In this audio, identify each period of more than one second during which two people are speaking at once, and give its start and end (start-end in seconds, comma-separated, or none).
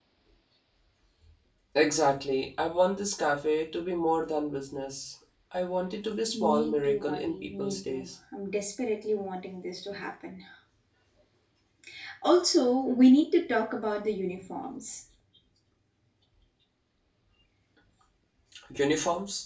6.4-8.1